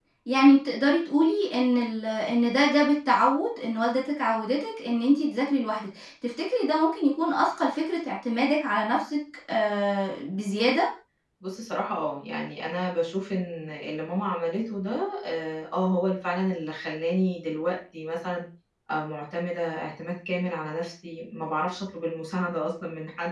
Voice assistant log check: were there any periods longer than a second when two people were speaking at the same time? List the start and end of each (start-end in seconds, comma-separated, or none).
none